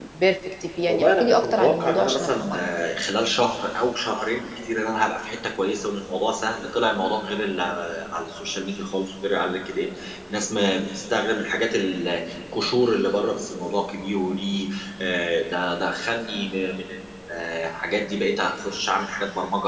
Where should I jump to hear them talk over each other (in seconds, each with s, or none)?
0.9 s